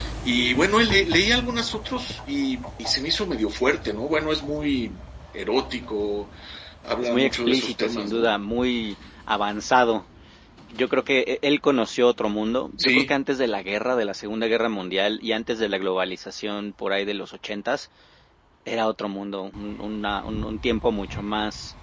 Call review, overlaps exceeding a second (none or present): present